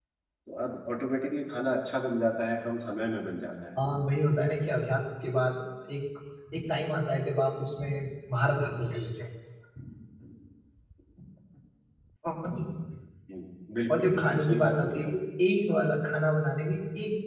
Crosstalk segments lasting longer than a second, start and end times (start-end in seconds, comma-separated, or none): 13.9-15.1